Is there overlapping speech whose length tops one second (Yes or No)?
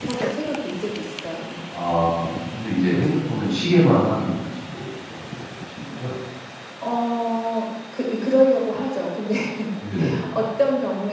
No